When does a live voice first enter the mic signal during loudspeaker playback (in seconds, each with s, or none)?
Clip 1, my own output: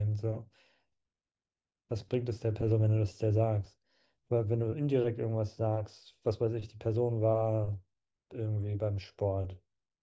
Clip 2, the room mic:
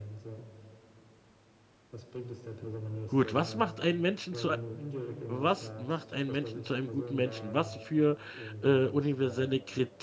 3.1 s